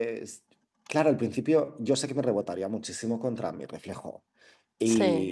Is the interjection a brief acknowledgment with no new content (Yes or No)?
Yes